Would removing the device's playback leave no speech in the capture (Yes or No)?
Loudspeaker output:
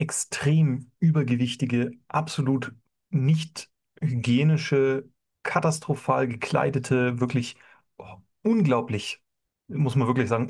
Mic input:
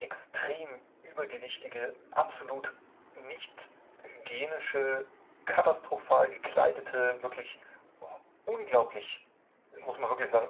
Yes